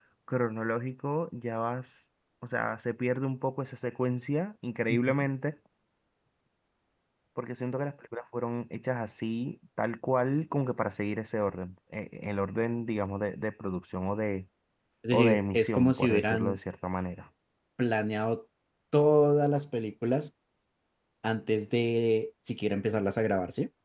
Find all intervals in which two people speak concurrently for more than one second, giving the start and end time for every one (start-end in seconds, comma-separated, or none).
15.1-16.6